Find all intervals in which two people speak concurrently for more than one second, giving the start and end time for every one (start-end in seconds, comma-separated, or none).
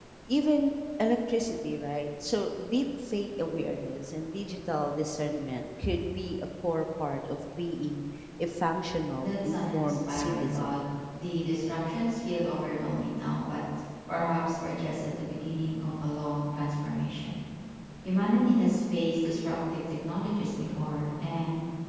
9.2-10.8